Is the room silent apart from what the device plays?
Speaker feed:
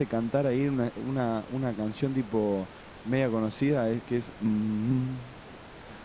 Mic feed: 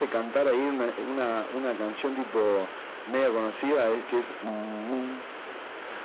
Yes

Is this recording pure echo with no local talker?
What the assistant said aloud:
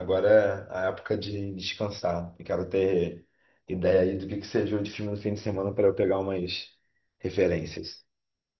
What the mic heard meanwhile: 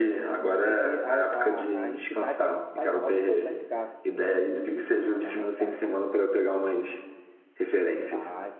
No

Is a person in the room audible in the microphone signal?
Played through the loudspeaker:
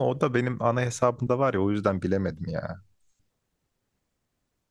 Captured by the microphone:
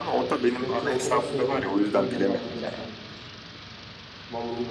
Yes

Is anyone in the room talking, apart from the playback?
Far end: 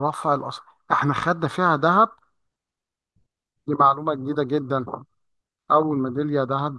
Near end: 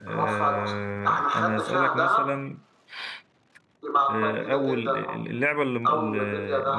Yes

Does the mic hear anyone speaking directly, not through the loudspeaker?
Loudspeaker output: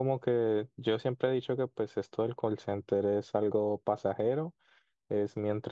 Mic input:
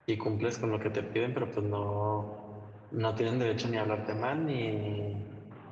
Yes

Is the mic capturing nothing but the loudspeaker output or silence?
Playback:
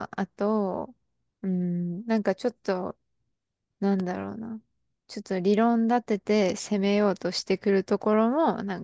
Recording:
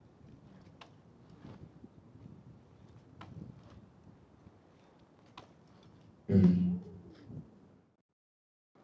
No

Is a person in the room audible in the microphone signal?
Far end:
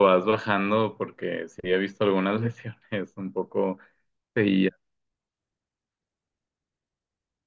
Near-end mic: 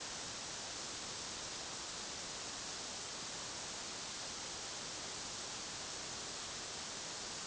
No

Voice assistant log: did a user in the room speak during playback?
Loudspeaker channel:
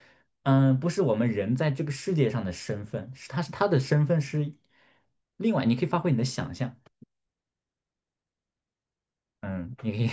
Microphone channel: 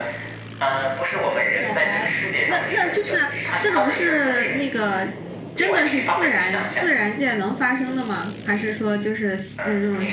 Yes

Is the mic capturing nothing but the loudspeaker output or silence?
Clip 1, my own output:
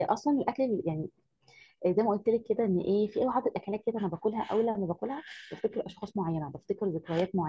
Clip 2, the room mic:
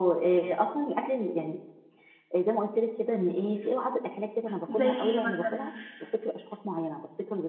No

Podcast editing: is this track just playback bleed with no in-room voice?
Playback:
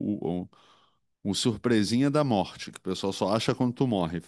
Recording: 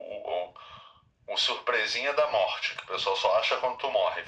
Yes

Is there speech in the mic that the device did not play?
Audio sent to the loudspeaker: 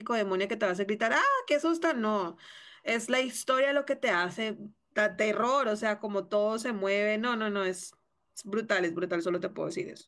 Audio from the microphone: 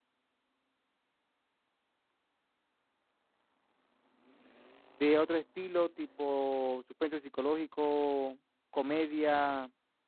Yes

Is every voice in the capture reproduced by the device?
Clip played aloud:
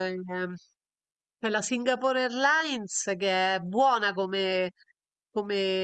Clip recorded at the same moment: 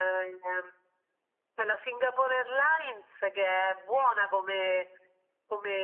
Yes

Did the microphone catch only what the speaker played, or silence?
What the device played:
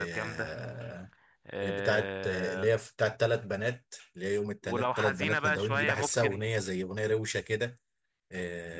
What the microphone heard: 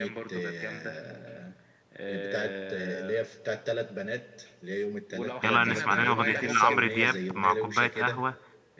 No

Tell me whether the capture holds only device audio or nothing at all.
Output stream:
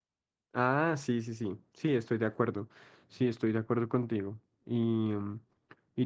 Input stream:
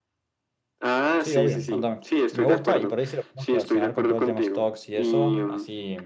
No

